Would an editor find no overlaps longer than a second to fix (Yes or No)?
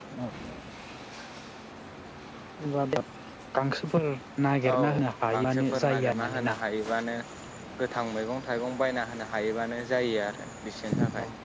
No